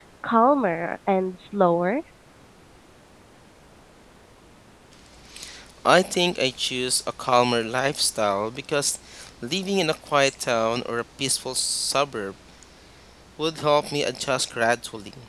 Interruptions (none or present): none